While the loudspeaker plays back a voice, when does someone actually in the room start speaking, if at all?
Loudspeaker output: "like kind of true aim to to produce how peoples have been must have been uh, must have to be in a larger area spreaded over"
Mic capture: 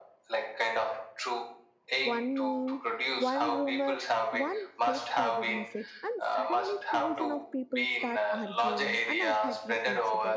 2.0 s

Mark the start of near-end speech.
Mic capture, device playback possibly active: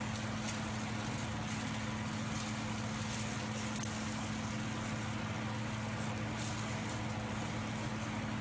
none

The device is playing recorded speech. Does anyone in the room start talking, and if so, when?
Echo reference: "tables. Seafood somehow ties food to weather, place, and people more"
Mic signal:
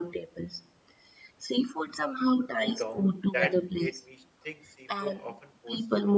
2.5 s

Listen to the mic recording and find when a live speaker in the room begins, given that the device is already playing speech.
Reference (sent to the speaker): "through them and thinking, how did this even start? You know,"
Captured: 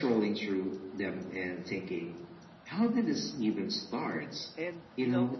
4.2 s

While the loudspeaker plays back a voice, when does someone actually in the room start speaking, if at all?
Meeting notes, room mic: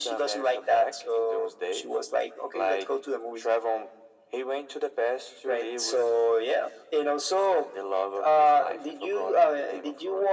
none

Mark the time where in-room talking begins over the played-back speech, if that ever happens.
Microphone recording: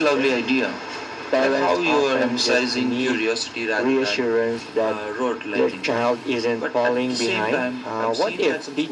none

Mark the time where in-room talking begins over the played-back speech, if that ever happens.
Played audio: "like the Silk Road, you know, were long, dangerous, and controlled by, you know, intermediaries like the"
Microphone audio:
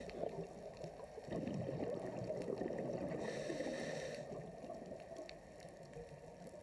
none

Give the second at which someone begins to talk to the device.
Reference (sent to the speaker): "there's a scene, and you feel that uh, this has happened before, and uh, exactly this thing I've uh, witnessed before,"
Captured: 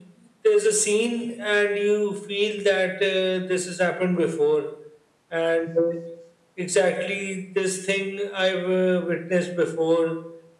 none

